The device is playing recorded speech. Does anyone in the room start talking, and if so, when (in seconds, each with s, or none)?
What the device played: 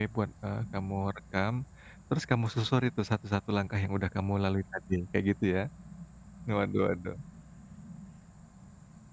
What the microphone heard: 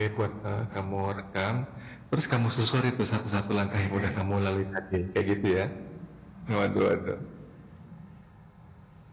3.8 s